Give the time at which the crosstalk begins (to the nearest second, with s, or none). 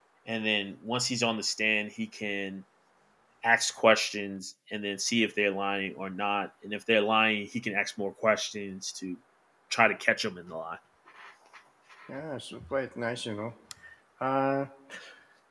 none